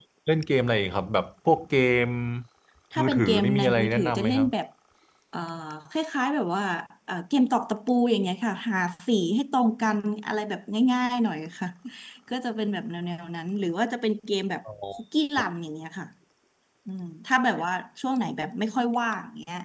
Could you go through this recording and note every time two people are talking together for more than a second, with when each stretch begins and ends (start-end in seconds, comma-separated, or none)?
3.0-4.5